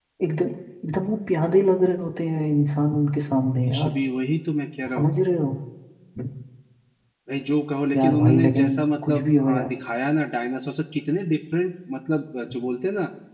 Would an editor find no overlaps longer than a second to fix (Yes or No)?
No